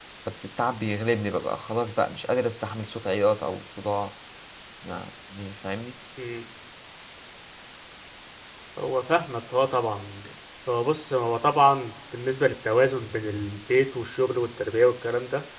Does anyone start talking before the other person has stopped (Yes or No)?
No